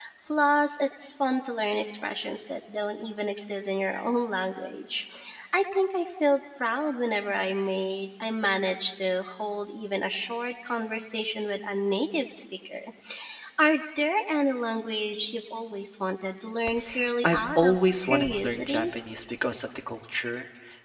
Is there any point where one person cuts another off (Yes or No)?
Yes